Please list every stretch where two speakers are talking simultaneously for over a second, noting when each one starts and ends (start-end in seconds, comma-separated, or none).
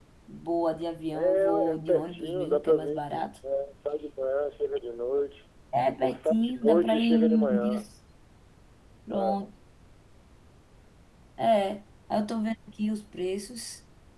1.1-3.0, 6.0-7.9